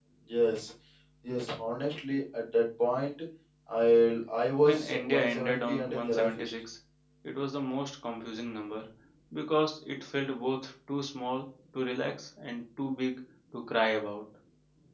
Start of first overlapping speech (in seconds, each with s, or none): 4.6 s